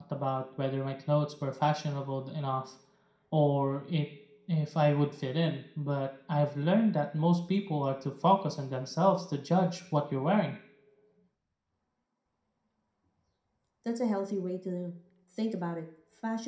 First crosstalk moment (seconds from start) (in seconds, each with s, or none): none